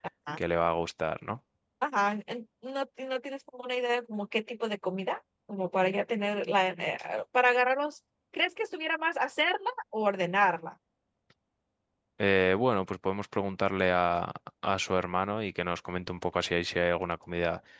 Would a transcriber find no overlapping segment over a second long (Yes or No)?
Yes